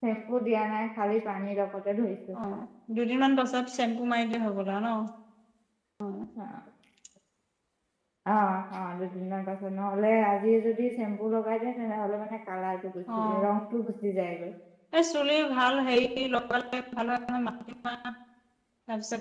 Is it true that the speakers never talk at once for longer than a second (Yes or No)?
Yes